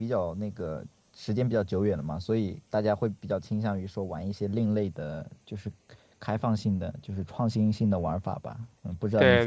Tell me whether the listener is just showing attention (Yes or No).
No